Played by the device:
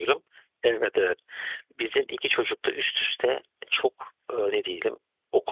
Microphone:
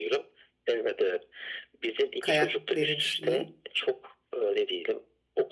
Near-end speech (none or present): present